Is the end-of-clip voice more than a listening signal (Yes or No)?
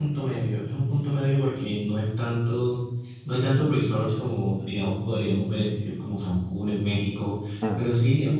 No